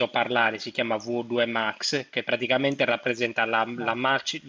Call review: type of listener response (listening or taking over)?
listening